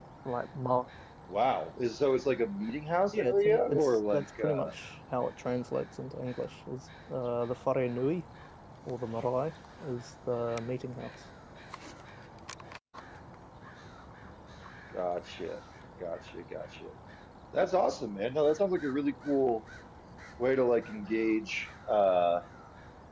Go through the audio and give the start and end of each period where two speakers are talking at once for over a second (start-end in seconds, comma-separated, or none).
3.1-4.7